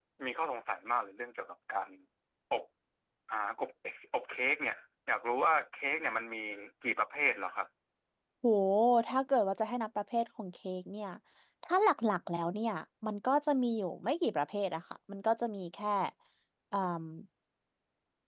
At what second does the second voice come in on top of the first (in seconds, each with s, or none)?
none